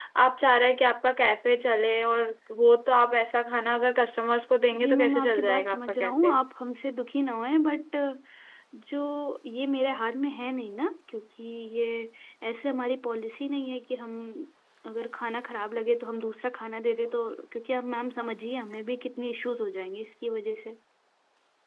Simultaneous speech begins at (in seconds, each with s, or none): 4.7 s